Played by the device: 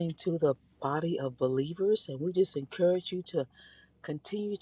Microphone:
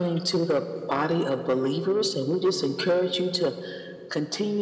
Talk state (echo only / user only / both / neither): echo only